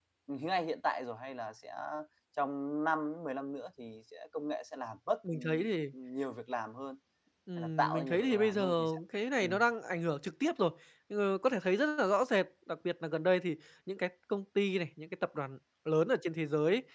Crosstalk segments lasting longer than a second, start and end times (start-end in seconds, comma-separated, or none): 7.6-9.0